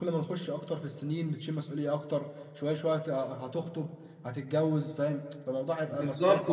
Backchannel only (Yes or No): No